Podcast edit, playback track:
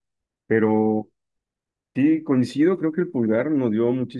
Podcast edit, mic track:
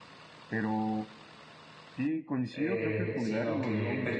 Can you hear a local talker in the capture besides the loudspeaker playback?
Yes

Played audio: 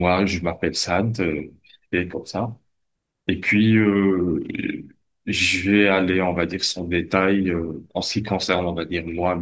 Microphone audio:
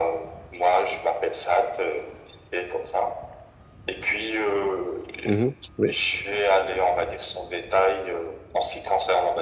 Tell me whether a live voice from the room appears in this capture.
Yes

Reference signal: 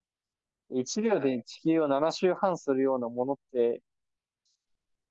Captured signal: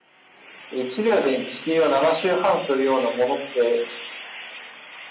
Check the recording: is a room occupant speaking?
No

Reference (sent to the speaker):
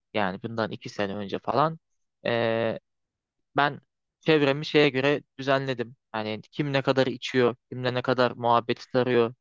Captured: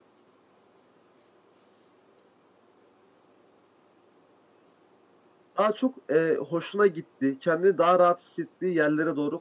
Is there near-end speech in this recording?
Yes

